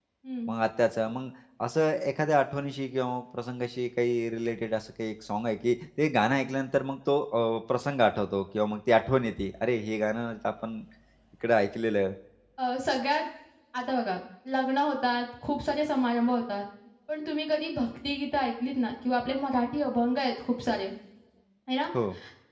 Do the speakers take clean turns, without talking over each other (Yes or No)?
Yes